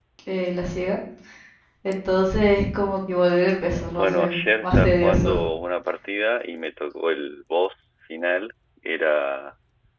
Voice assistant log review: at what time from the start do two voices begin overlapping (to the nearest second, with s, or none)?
4 s